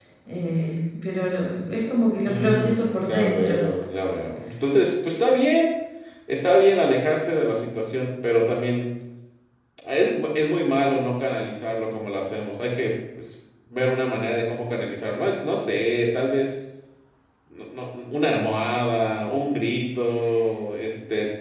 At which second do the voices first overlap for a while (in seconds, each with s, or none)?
2.2 s